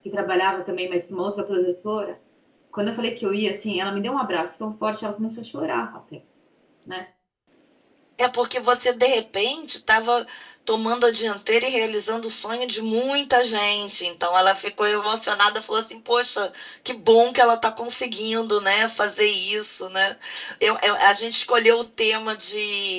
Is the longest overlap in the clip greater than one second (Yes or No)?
No